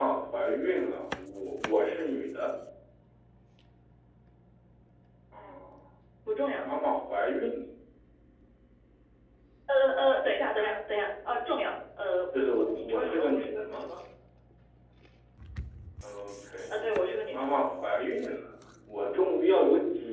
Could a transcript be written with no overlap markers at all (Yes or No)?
No